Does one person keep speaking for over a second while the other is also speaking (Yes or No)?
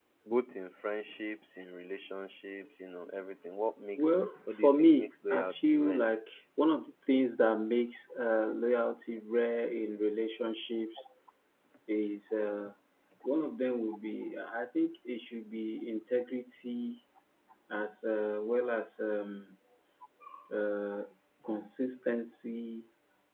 Yes